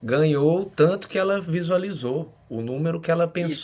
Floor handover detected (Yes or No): No